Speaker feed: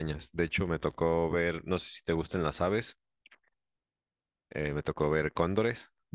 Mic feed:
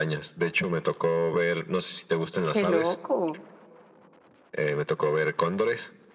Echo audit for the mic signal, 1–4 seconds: both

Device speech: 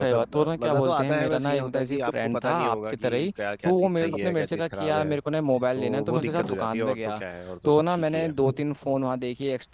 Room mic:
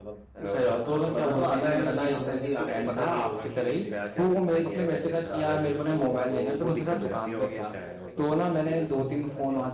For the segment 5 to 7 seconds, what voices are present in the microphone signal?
both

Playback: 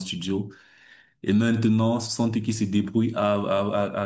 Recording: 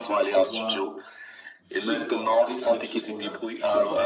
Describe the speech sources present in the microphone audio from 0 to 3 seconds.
both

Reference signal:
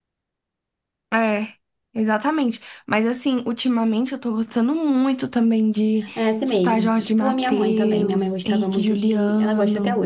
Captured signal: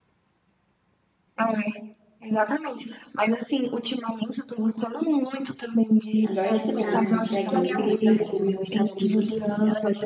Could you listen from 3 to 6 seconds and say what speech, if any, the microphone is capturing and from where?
echo only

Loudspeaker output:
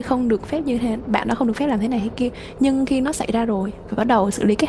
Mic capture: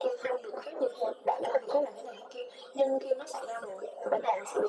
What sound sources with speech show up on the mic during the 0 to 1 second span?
echo only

